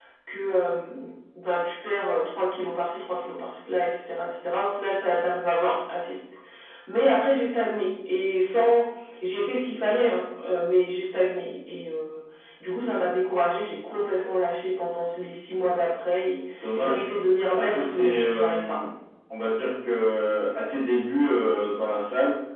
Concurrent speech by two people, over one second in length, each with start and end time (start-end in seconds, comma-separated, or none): 17.5-18.8